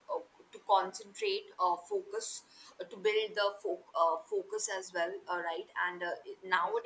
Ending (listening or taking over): listening